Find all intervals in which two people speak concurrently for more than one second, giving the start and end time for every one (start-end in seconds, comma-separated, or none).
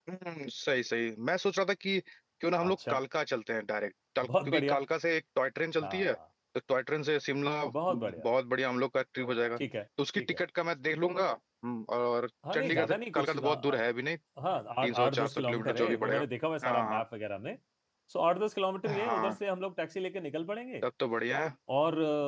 12.5-13.8, 14.8-16.2